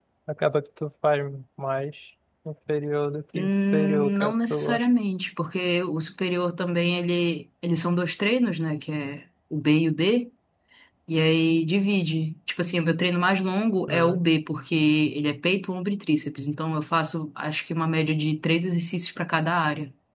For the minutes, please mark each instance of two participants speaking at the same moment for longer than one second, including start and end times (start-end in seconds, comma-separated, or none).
3.4-4.9